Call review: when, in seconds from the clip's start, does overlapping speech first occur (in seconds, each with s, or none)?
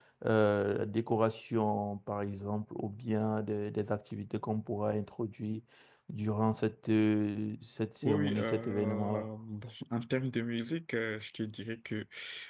8.0 s